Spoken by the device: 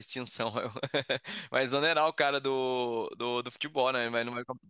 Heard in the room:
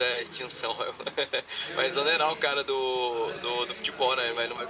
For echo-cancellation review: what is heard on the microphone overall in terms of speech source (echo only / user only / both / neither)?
both